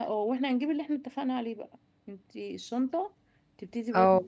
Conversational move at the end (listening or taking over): listening